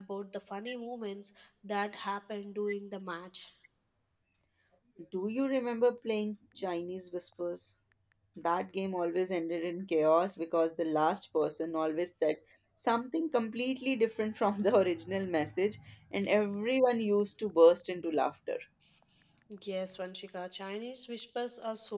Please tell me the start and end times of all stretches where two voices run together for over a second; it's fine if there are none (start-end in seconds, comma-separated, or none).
none